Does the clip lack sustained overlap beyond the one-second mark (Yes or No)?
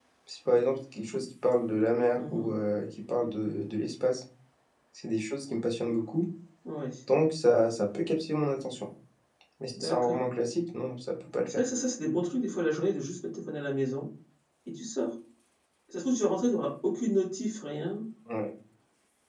Yes